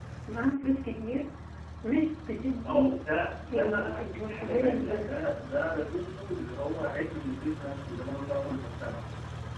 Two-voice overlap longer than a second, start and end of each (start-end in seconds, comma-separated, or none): 3.5-5.2